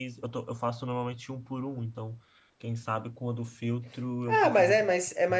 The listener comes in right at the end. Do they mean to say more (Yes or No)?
Yes